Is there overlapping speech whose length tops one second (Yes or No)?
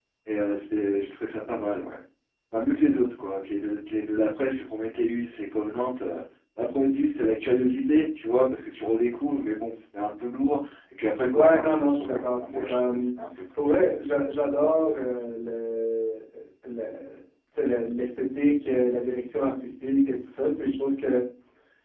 Yes